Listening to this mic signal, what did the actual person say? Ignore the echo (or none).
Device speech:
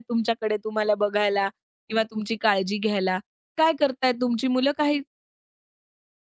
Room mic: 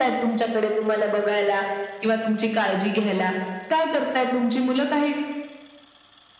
none